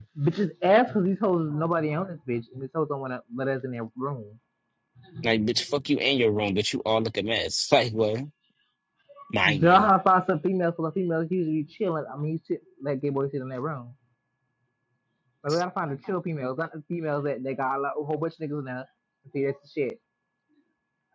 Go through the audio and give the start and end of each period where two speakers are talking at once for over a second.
none

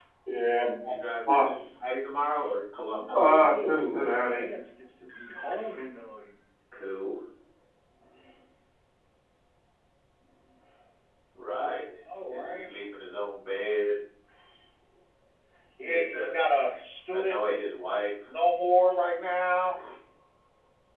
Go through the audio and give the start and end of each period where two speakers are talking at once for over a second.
3.1-4.4

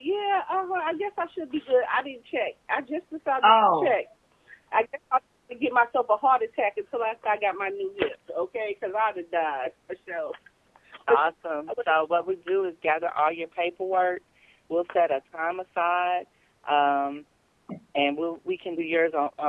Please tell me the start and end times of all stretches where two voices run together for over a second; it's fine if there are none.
none

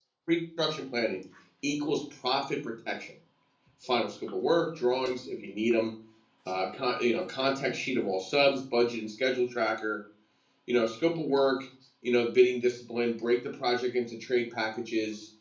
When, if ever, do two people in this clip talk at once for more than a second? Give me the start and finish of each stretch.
none

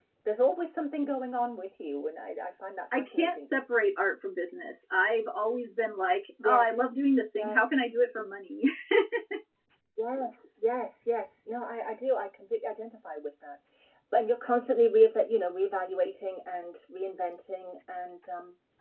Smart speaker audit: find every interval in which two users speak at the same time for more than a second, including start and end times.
none

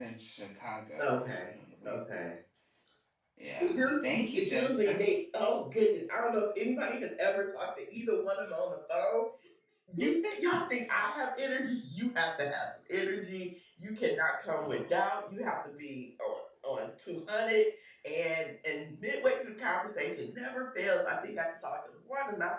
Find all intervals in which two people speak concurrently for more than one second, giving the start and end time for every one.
3.6-5.0

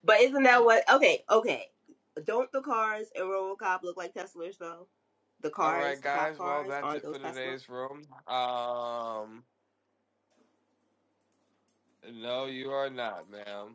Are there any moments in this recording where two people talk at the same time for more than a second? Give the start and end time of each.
5.6-7.5

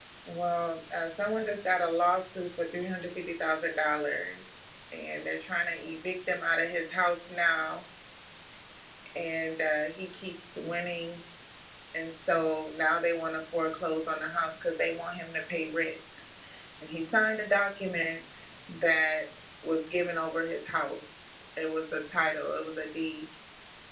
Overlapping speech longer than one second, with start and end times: none

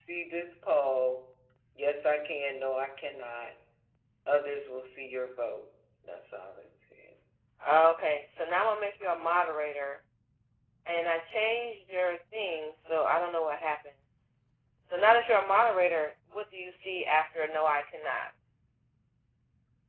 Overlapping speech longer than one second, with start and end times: none

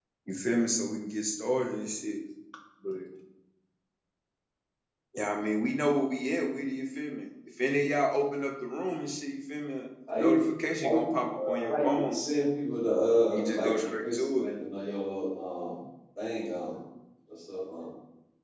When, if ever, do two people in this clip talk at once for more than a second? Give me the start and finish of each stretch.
10.8-12.2, 13.3-14.5

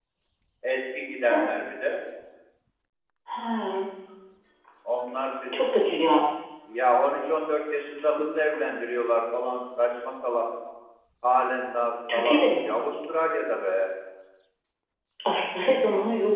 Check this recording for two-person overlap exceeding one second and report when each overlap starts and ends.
none

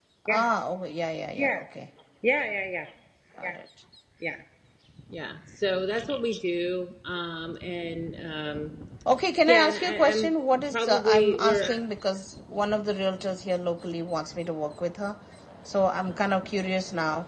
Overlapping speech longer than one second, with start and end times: 9.5-11.6

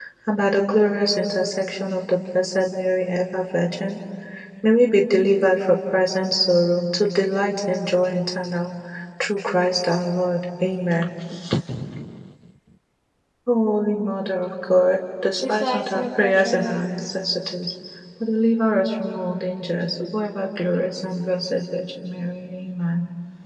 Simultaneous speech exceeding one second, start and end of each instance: 15.4-16.9

